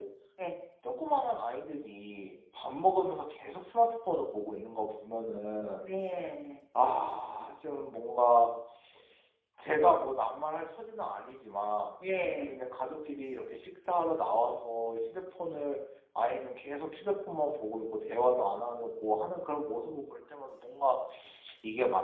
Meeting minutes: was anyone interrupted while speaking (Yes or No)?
No